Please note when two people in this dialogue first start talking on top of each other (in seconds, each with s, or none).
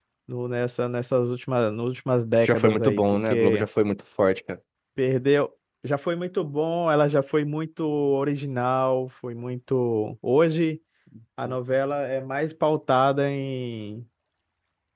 2.4 s